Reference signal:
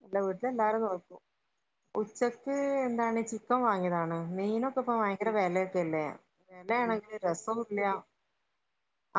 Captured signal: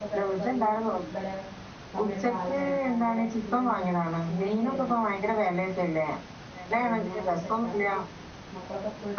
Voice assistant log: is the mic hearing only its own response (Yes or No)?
No